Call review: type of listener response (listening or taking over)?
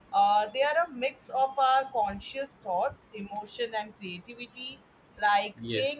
listening